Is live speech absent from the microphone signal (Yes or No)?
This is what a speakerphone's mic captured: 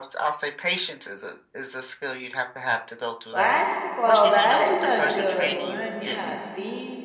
No